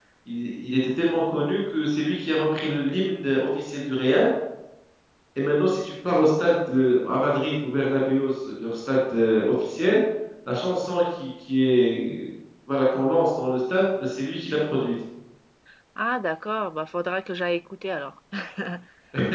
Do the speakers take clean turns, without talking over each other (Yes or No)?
Yes